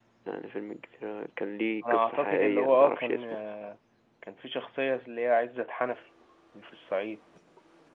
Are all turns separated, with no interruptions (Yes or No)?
No